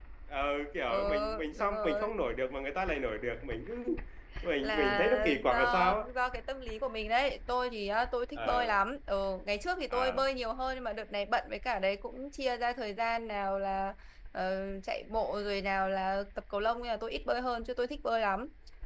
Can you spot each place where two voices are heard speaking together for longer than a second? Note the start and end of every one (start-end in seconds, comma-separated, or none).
0.9-2.1, 4.6-6.0